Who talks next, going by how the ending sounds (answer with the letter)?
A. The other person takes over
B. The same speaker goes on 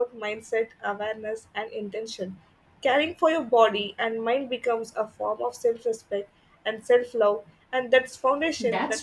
A